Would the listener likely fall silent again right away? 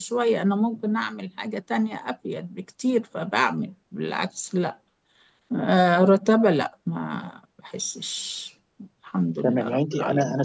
No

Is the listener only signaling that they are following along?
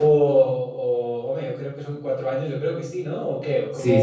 No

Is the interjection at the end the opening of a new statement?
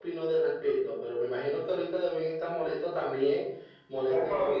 Yes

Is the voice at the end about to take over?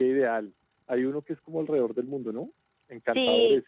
Yes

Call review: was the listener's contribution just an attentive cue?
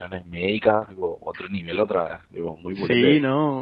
No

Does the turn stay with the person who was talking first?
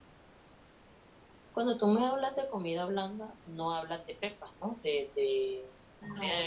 No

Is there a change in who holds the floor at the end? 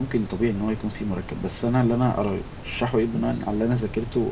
No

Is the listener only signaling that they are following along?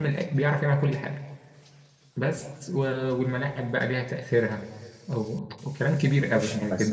Yes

